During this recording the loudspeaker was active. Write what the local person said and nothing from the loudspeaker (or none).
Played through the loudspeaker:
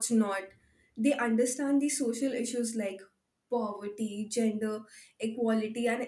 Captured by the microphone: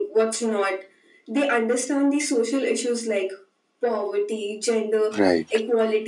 right